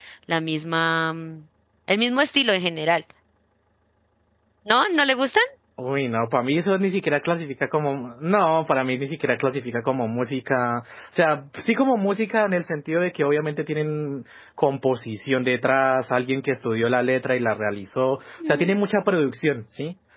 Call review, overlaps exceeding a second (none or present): none